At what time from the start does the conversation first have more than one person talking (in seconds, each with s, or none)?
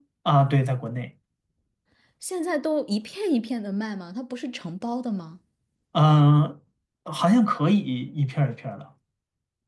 none